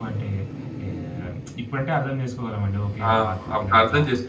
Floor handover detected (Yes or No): Yes